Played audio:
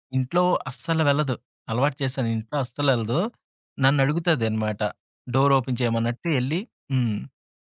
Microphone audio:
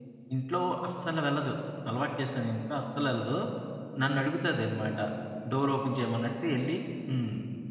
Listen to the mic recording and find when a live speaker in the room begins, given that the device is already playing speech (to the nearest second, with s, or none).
none